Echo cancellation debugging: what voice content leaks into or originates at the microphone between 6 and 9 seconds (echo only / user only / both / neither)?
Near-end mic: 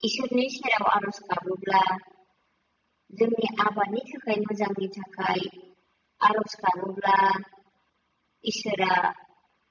echo only